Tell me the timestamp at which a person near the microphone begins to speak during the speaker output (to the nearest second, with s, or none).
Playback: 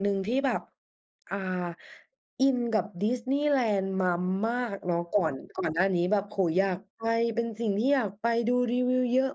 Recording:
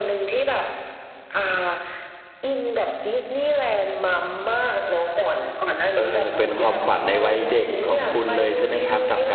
6 s